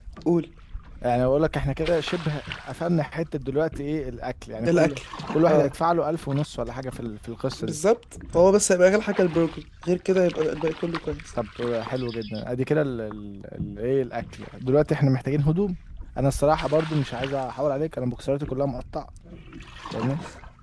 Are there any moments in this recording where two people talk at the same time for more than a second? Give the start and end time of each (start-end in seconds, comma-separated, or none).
none